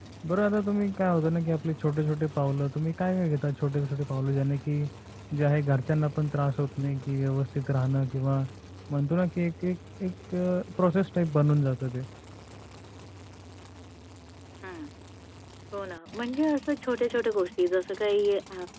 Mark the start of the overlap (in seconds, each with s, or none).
none